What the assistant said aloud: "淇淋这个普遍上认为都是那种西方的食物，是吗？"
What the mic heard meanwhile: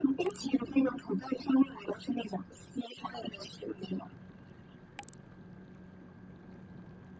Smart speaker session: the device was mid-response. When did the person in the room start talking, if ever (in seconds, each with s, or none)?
none